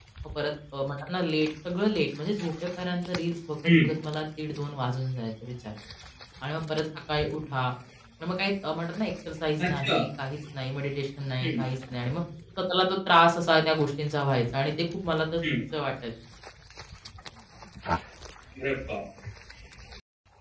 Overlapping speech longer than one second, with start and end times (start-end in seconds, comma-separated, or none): none